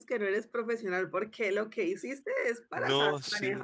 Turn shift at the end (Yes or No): Yes